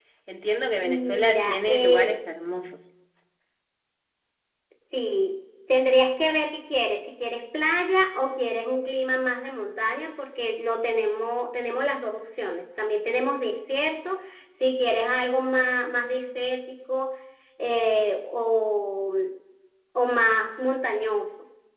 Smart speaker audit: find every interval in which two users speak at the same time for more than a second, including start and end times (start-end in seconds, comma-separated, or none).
0.8-2.2